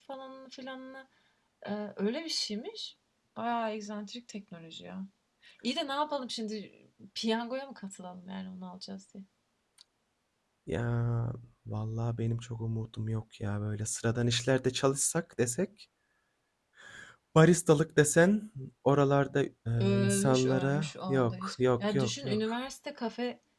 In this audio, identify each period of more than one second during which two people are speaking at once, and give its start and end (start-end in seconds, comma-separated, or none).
19.8-22.6